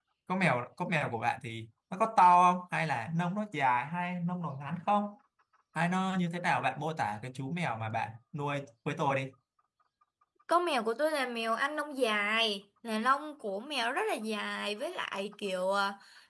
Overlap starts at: none

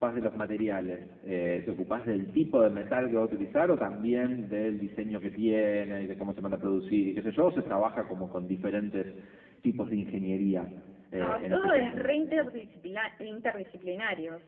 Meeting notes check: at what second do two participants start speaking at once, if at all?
11 s

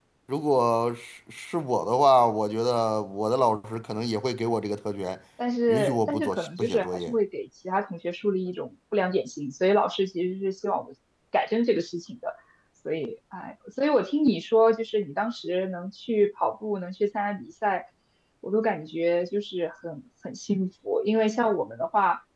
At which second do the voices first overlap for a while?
6 s

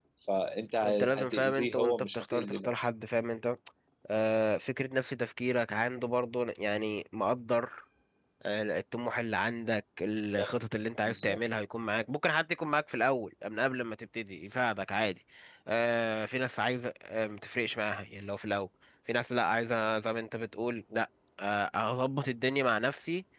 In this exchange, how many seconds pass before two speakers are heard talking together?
1 s

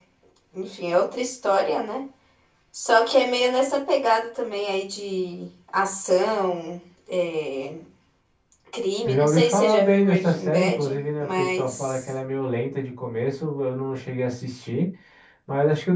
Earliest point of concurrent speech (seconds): 9 s

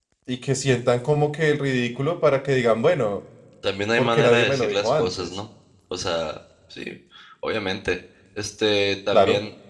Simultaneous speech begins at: 4 s

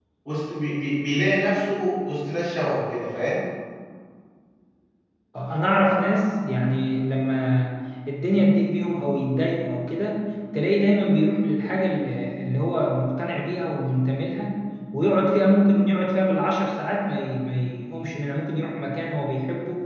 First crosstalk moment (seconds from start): none

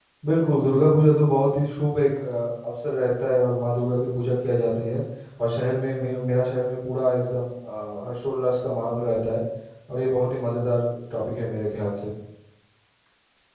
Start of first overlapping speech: none

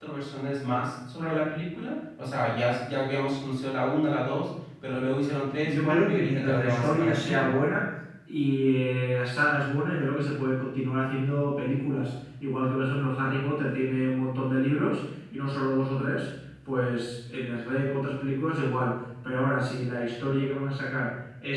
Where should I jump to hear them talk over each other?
6 s

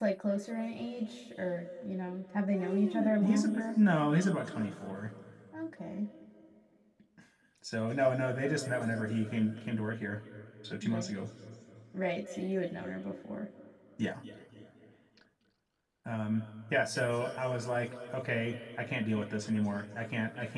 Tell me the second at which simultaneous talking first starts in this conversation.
3 s

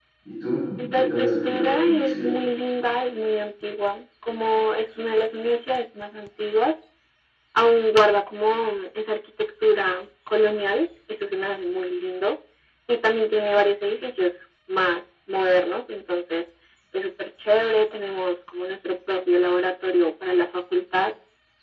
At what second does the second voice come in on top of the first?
1 s

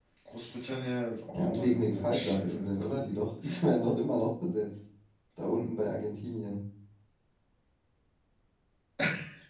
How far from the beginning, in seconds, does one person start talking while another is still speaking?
1 s

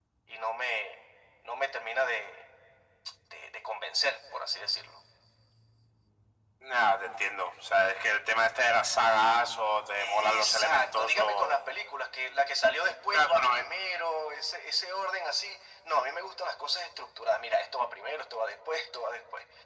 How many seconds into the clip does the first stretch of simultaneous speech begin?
10 s

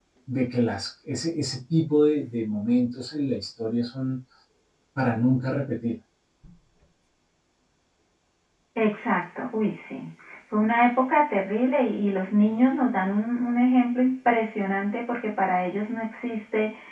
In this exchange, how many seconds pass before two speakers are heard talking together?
none

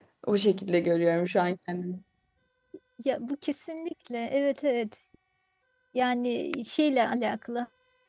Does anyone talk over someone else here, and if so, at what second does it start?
none

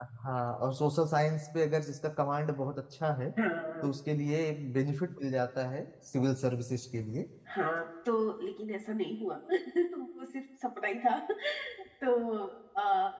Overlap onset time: none

